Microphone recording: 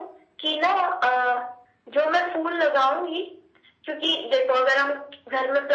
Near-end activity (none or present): none